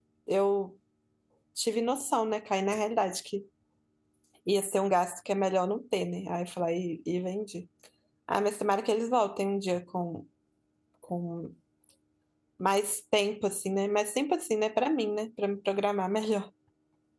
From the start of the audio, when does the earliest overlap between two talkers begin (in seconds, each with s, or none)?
none